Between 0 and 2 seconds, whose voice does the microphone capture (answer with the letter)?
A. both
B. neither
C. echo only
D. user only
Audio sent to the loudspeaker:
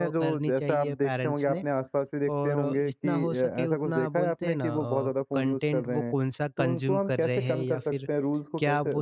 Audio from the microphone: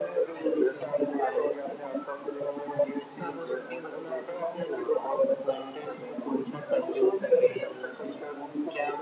C